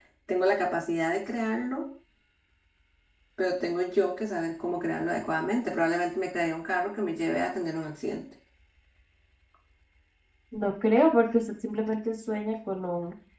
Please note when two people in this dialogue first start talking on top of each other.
none

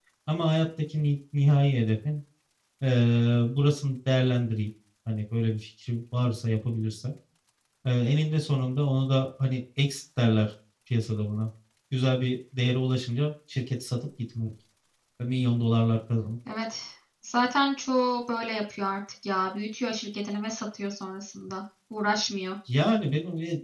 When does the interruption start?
none

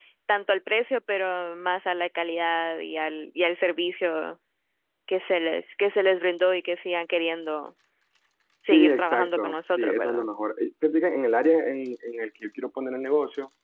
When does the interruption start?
8.7 s

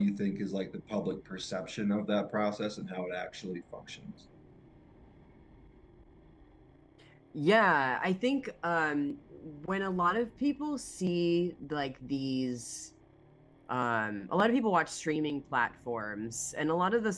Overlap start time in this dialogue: none

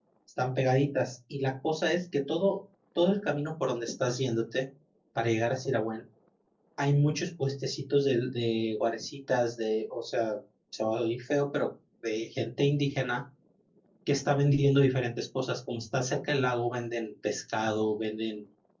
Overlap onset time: none

